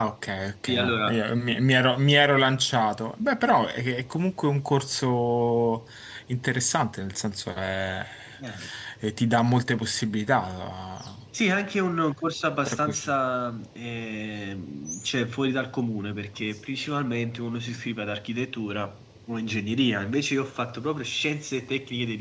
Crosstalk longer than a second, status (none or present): none